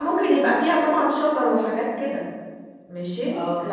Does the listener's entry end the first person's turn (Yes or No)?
No